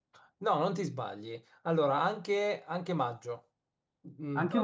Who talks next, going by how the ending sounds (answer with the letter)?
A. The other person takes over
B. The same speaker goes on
B